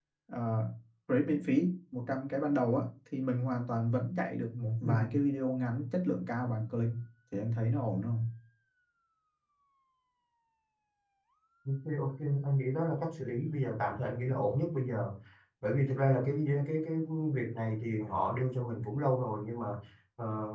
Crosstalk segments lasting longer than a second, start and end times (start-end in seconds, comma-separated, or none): none